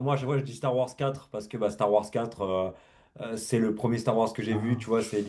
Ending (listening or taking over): listening